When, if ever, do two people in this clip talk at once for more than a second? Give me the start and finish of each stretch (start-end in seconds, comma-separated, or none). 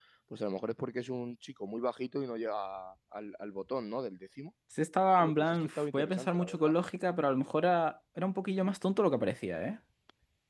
5.2-6.7